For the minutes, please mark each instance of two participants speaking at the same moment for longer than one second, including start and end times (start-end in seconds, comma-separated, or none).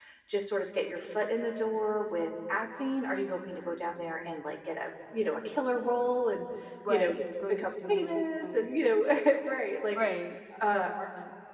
7.5-8.8